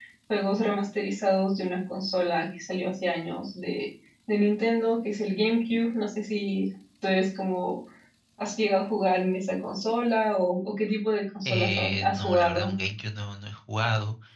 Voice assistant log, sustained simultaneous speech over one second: present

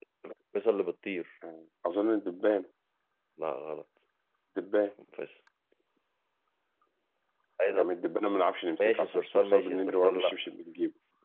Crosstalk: present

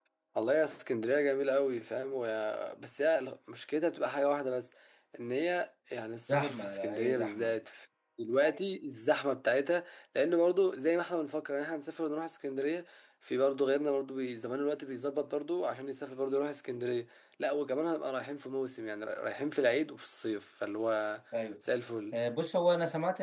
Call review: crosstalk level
present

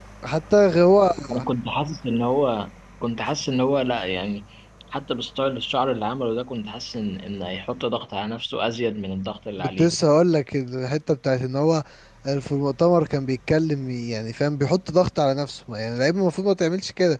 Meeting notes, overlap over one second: none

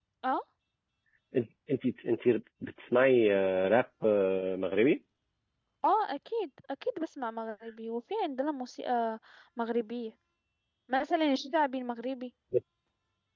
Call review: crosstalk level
none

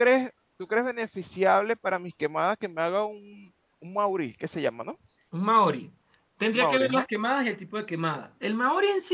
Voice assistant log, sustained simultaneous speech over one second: none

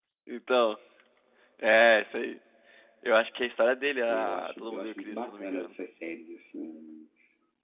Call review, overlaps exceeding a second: present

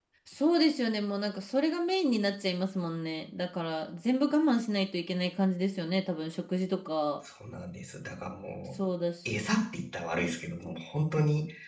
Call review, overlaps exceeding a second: none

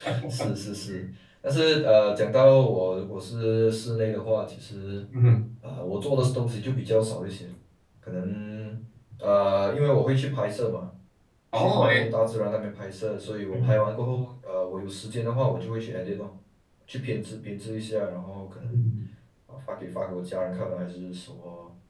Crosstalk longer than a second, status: none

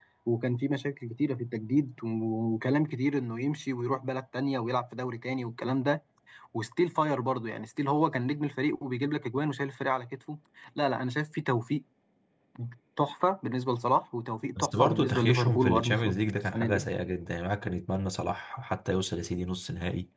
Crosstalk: present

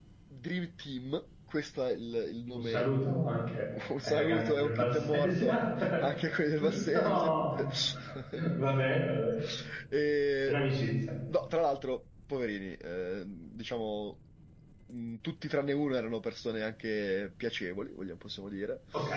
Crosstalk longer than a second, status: present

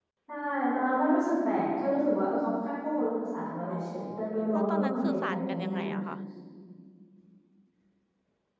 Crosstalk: present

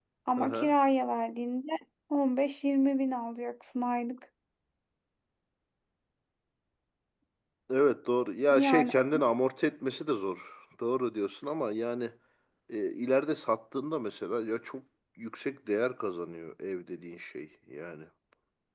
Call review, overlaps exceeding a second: none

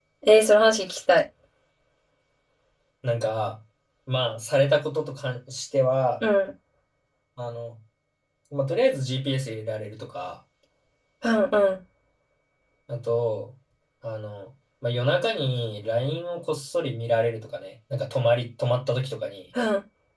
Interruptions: none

